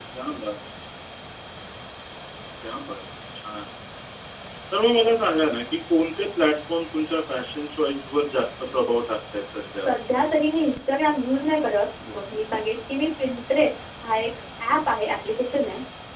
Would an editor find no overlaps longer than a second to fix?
Yes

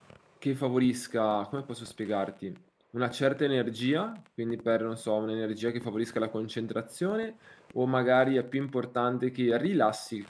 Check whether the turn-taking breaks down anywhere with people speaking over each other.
No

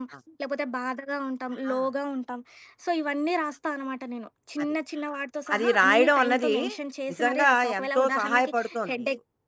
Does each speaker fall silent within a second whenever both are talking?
No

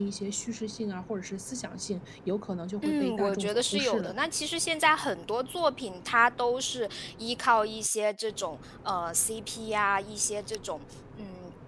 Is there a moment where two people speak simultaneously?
Yes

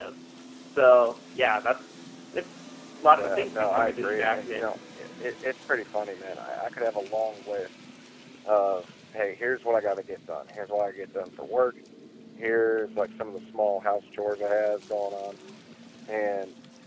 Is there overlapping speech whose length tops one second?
Yes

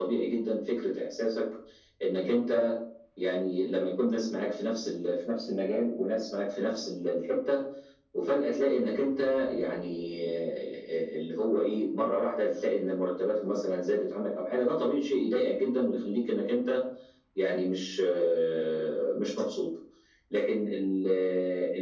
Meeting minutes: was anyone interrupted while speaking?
No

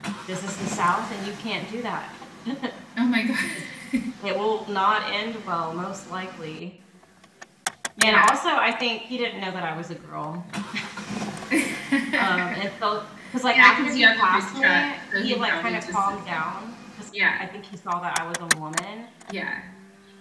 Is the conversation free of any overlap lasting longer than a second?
No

